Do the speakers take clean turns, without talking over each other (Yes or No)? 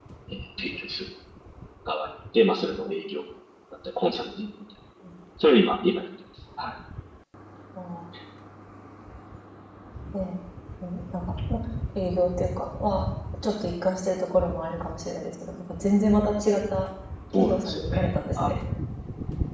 No